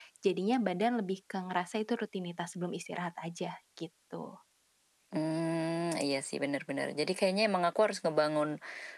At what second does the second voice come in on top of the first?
none

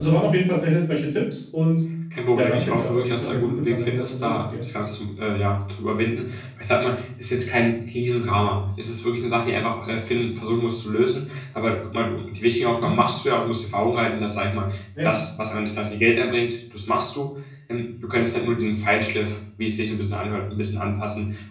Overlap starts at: 2.4 s

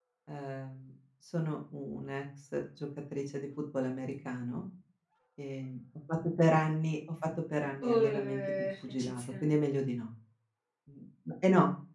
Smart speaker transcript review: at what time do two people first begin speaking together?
7.8 s

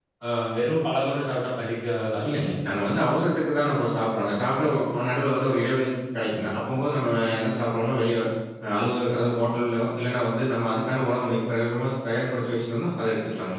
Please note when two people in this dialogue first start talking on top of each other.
none

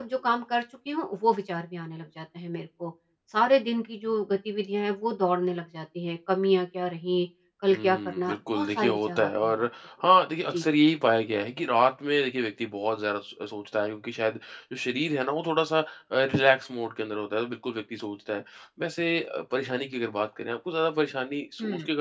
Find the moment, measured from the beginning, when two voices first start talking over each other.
7.7 s

